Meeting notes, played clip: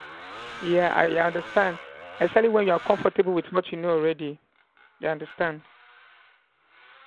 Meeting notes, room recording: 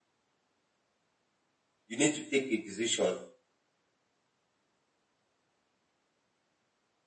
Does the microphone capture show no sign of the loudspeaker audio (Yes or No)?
Yes